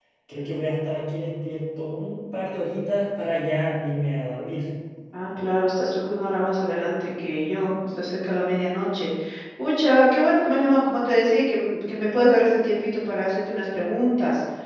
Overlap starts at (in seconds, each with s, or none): none